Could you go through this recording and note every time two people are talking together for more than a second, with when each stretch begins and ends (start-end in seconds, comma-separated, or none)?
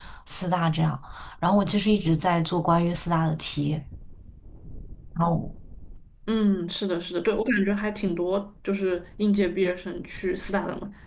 none